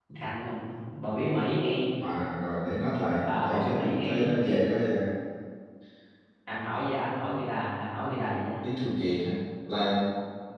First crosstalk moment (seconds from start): 3.2 s

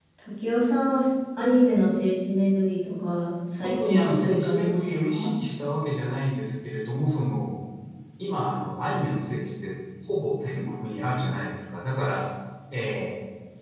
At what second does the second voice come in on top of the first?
3.6 s

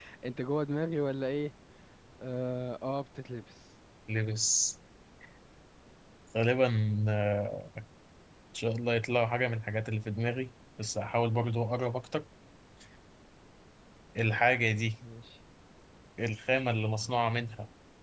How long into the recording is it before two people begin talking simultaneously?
none

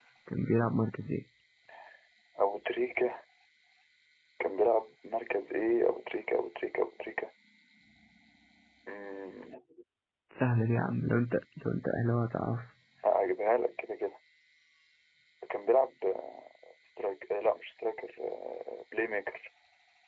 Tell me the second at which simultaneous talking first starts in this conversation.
none

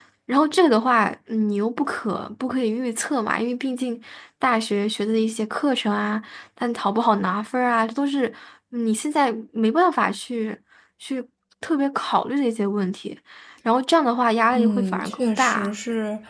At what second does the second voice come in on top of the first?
14.5 s

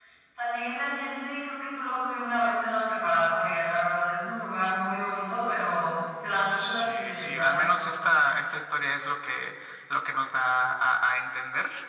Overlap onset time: 6.5 s

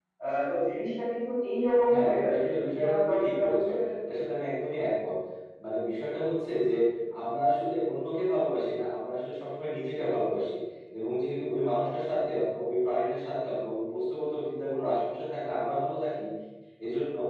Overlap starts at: 1.9 s

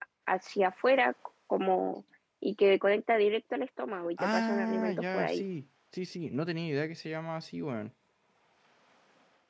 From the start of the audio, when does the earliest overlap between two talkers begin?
4.2 s

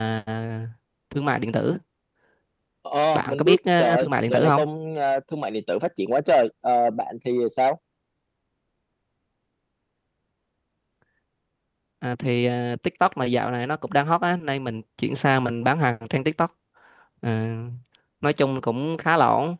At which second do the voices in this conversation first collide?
3.1 s

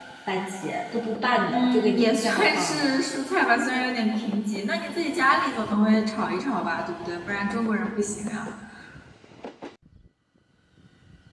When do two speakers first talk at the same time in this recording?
1.5 s

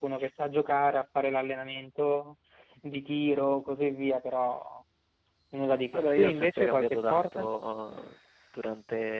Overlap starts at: 5.9 s

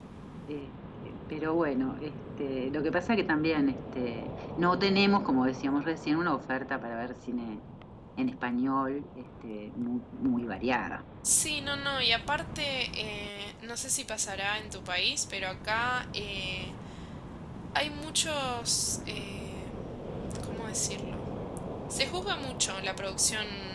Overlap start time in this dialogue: none

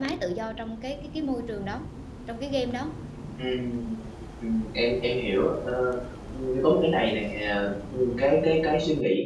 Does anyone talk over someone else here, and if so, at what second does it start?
none

